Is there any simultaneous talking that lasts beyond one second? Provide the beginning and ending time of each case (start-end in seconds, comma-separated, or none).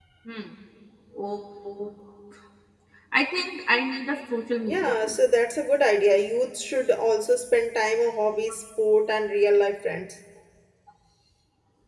none